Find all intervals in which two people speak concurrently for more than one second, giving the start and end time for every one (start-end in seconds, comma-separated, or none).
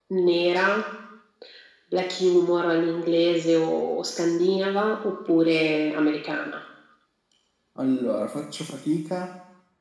none